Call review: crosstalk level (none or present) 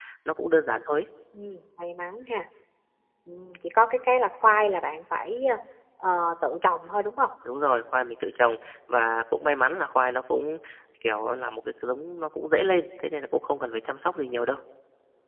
none